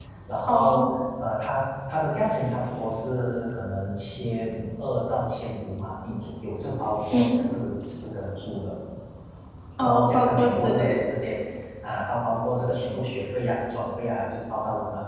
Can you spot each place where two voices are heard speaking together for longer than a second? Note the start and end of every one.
9.8-11.0

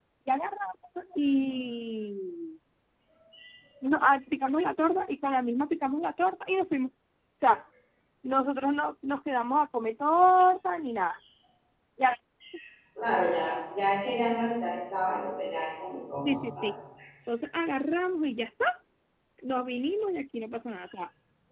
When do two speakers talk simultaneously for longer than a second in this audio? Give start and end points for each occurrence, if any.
none

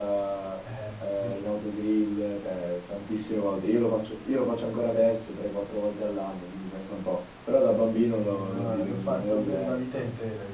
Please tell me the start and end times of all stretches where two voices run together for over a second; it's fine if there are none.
8.2-10.0

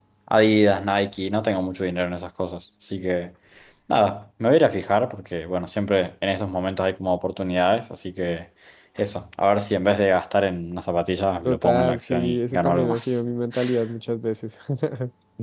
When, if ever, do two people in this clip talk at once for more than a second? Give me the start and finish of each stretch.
11.4-13.2

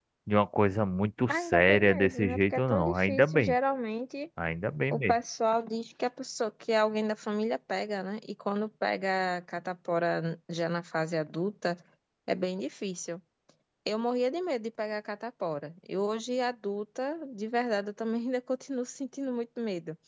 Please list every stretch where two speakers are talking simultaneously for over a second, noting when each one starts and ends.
1.3-3.6

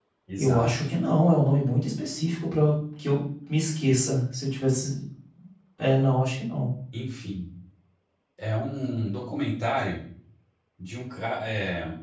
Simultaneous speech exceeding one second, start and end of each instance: none

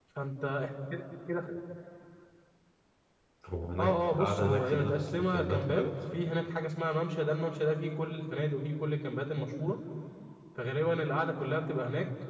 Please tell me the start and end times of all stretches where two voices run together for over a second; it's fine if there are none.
3.8-5.8

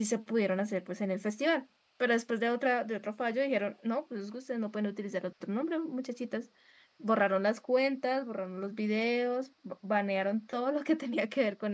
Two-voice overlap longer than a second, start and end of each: none

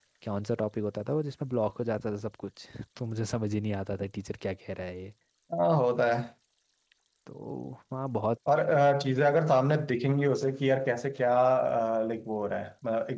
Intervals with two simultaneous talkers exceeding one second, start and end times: none

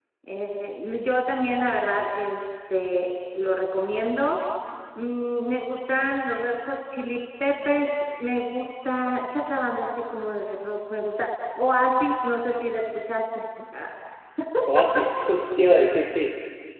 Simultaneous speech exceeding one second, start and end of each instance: none

